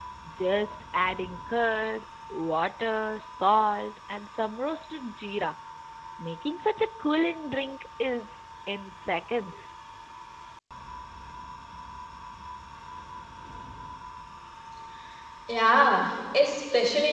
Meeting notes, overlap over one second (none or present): none